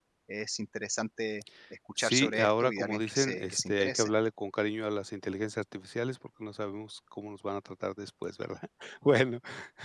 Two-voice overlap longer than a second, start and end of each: 2.0-4.1

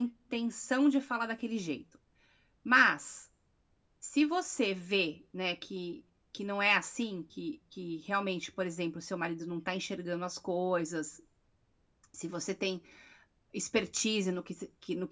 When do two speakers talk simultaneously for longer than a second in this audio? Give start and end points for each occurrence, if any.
none

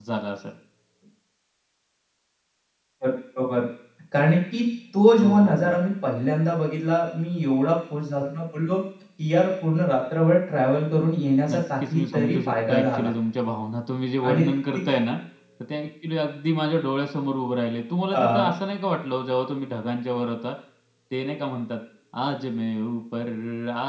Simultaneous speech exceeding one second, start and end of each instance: 11.5-13.1

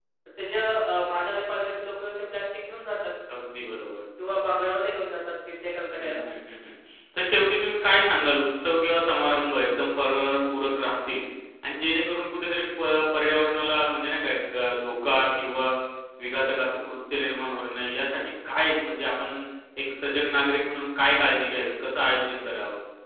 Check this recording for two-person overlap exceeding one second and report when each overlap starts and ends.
none

